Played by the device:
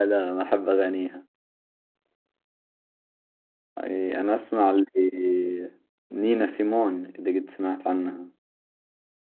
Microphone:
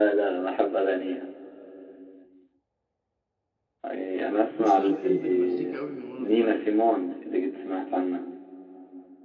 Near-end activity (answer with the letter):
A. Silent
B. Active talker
B